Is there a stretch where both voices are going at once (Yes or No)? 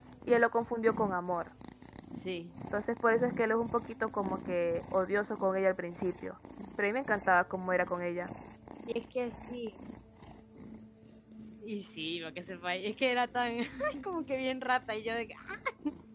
No